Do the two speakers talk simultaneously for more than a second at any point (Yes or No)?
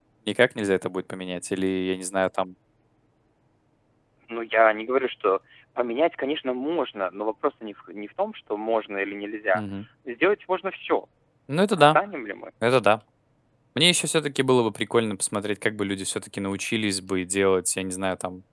No